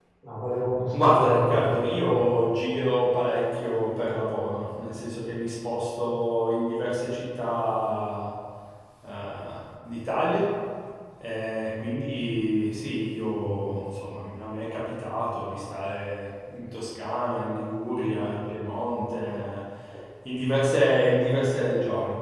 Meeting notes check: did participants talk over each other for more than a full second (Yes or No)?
Yes